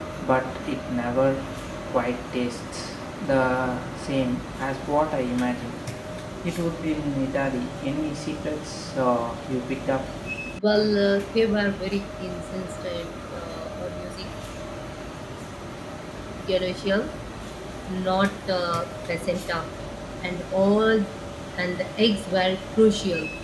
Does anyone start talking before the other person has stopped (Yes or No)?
No